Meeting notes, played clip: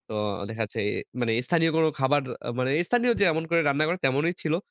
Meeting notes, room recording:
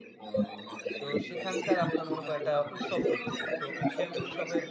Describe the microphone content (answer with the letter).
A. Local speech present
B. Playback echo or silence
A